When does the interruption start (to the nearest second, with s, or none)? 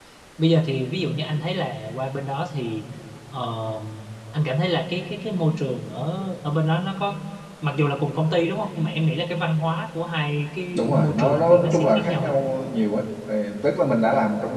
11 s